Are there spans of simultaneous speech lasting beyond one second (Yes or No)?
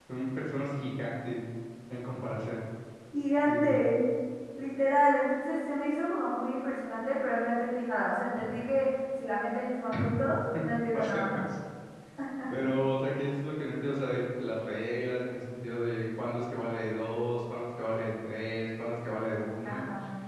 No